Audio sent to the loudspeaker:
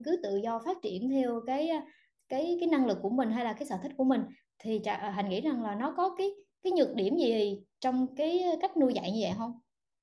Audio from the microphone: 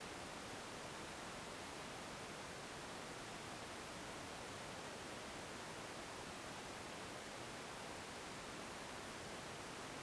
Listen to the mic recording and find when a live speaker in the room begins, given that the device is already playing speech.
none

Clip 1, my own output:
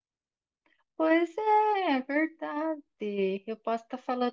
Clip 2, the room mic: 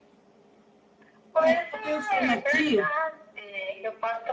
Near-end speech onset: 1 s

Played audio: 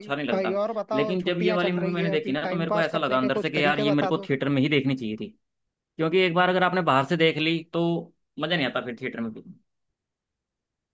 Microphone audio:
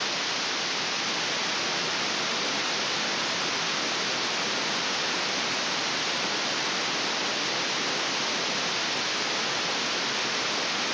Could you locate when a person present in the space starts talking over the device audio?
none

